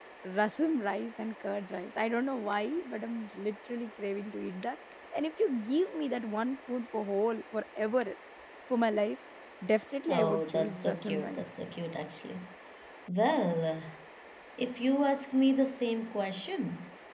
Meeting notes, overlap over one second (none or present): present